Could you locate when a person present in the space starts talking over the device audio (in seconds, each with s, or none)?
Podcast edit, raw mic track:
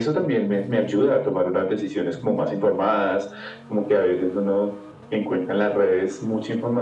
none